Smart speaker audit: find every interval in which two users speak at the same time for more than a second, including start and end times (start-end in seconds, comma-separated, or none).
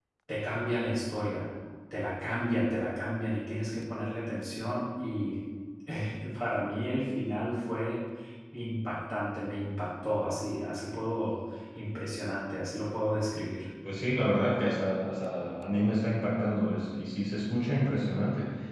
none